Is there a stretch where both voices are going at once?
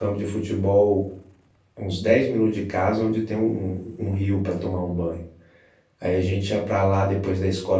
No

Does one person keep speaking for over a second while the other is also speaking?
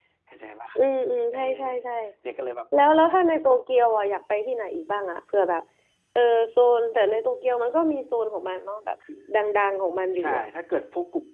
No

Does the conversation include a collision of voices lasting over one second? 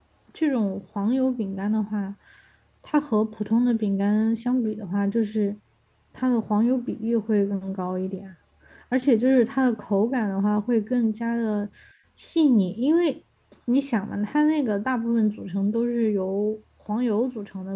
No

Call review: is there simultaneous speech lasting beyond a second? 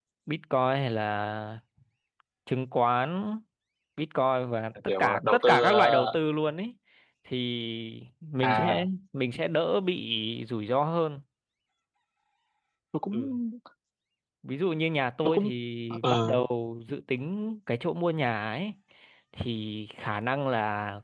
Yes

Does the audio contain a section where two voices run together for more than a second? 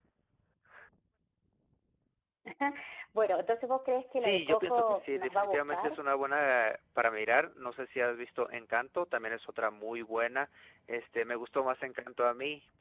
Yes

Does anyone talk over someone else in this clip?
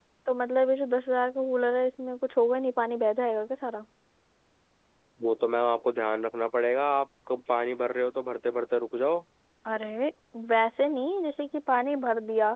No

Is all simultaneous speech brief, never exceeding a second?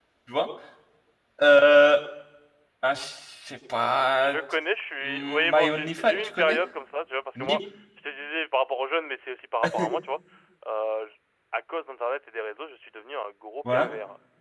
No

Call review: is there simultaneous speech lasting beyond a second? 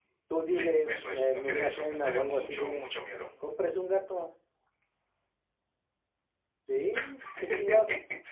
Yes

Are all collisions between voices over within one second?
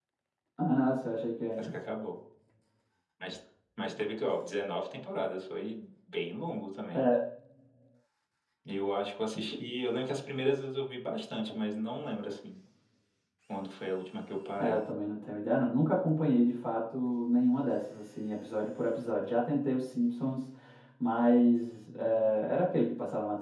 Yes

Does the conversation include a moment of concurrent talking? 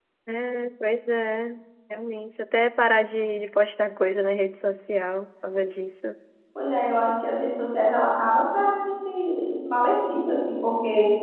No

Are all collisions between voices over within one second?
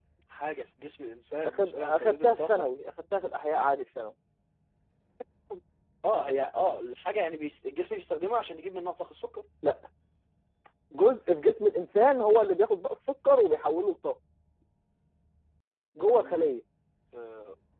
No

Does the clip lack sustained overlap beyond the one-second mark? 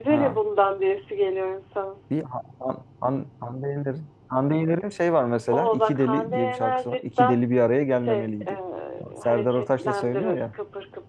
No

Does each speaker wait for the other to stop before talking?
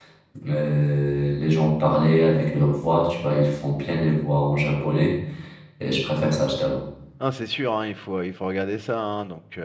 Yes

